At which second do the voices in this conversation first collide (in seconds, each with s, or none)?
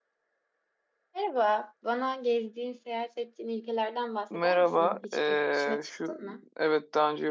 4.3 s